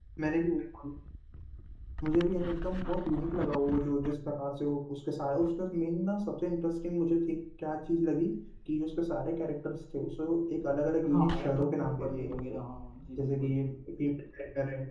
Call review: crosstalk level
present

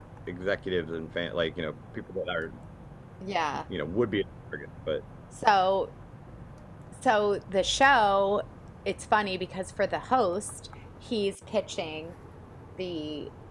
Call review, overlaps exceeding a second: none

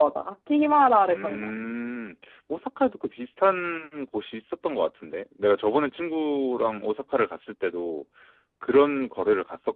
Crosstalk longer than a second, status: none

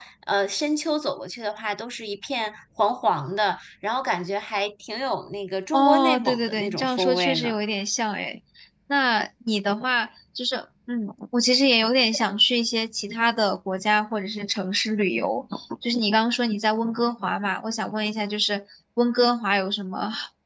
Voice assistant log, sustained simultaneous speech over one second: present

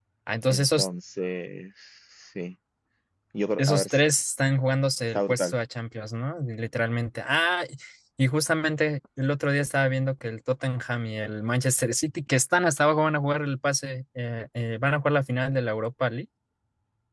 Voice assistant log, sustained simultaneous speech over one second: none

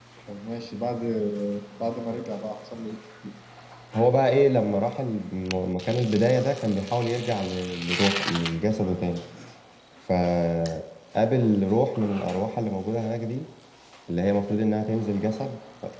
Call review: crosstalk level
none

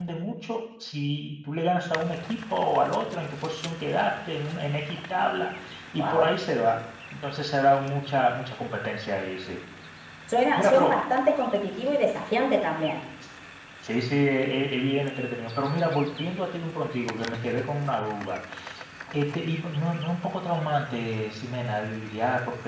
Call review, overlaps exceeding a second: none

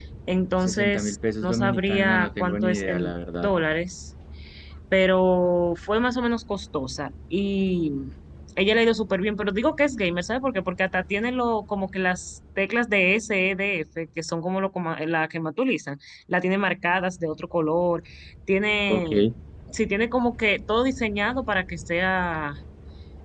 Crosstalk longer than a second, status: present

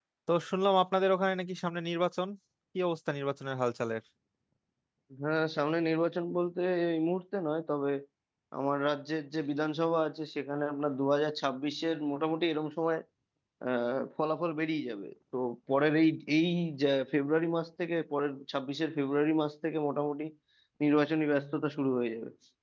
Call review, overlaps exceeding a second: none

